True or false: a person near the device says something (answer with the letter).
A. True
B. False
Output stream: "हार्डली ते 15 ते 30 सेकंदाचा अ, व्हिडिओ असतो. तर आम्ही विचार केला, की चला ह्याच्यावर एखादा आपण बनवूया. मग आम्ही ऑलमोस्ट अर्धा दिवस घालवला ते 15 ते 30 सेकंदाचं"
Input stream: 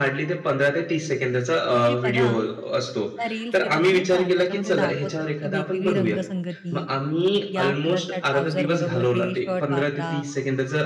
A